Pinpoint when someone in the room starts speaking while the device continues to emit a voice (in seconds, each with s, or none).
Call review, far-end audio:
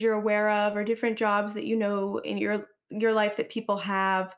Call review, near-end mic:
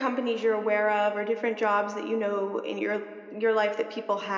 none